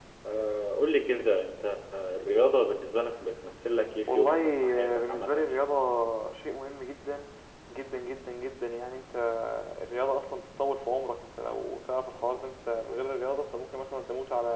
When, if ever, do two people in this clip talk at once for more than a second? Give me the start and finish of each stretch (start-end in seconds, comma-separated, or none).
4.1-5.7